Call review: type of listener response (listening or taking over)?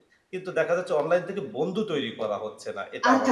taking over